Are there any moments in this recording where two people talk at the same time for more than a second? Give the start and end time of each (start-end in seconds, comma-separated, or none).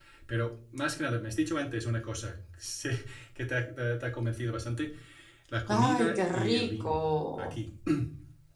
5.7-7.0